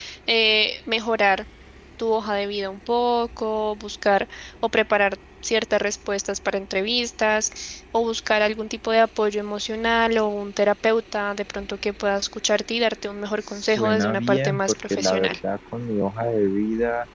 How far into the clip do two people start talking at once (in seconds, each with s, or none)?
13.5 s